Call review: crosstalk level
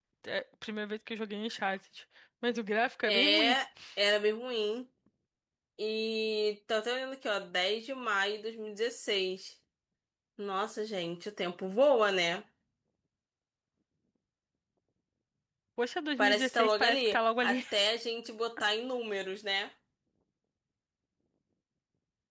present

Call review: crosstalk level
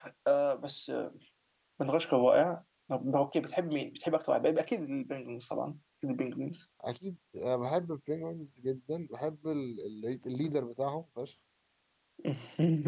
none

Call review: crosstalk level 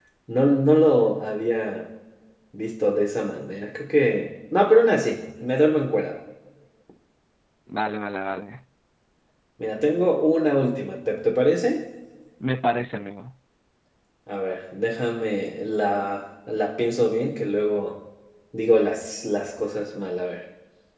none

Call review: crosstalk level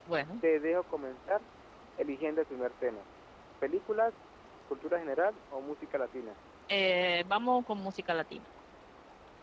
none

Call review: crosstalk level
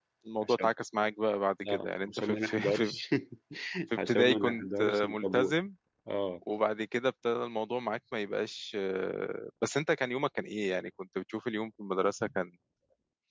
present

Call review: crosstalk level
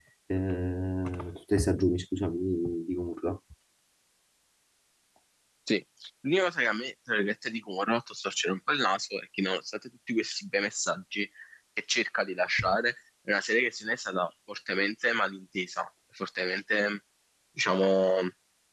none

